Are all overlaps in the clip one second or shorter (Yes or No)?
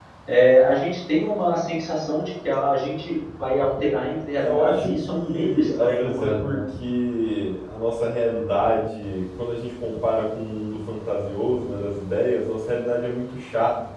No